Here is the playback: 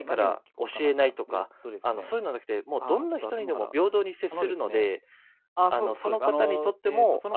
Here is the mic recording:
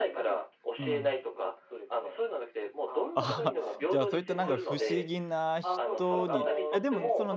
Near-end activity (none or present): present